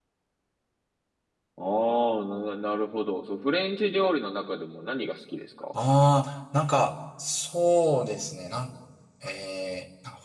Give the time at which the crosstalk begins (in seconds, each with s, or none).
none